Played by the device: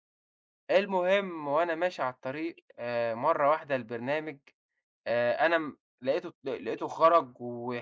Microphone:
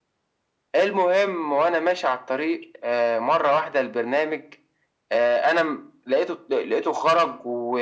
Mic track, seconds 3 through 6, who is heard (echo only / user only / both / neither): echo only